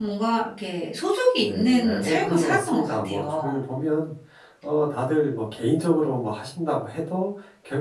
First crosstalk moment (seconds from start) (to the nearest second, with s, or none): 1 s